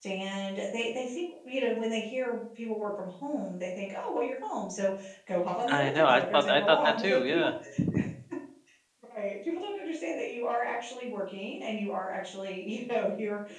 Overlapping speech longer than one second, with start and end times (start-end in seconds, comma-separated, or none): 5.7-7.5